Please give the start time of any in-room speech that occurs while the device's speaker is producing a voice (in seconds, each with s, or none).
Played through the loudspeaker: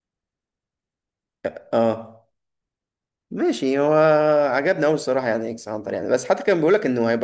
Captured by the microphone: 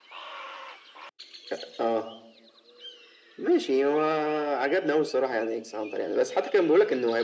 none